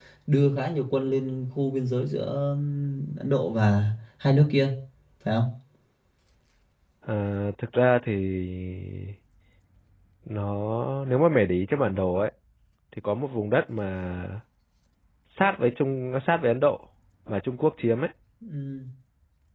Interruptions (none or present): none